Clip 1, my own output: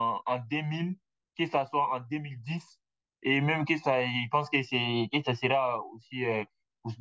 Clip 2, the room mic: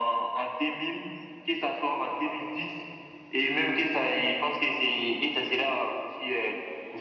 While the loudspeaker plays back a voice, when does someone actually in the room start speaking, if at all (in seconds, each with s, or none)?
none